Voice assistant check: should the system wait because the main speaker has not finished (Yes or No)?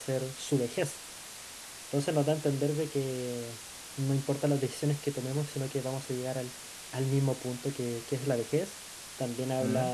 Yes